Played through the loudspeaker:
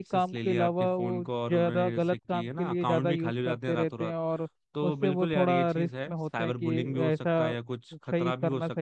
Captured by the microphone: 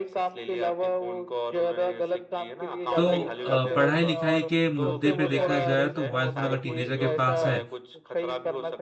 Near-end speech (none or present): present